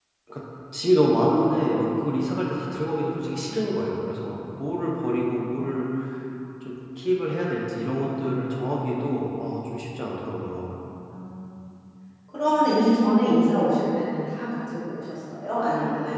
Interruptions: none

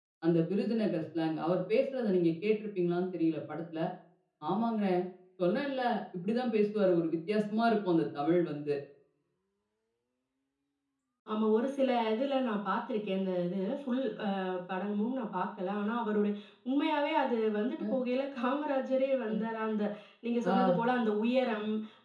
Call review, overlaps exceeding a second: none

